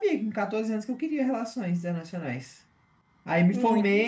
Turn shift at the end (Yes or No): No